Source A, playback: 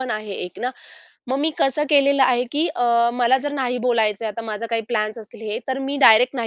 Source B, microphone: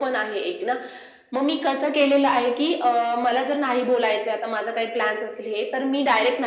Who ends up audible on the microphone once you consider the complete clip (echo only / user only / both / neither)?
echo only